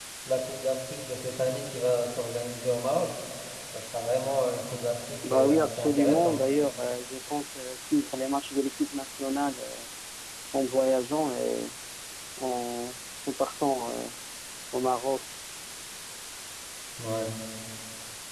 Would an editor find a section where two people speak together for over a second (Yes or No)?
Yes